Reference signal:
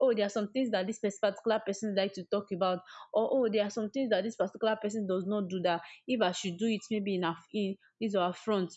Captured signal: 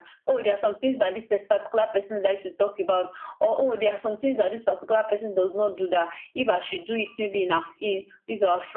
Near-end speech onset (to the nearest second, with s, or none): none